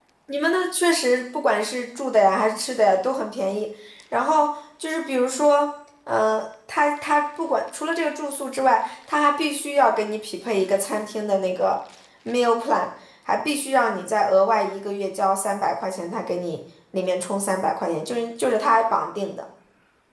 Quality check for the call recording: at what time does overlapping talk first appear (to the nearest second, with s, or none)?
none